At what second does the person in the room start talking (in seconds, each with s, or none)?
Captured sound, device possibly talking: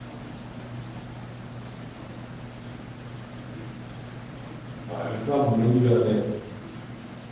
4.9 s